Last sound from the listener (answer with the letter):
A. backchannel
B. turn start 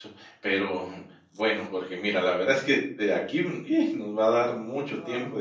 A